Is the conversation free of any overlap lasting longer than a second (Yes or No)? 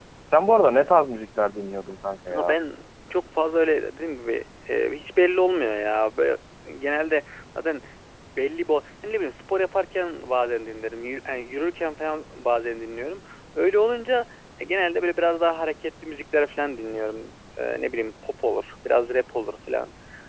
Yes